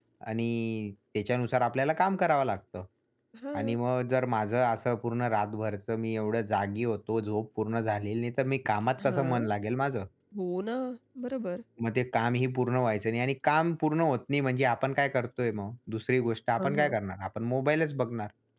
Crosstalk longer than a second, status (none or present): none